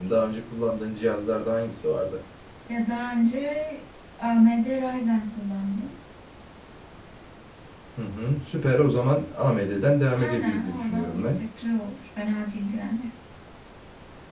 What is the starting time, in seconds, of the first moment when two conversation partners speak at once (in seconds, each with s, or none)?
10.1 s